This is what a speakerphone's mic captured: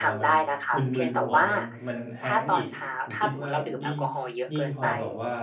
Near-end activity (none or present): present